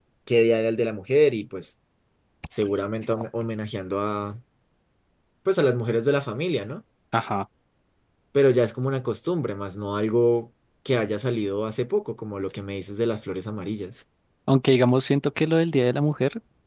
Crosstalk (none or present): none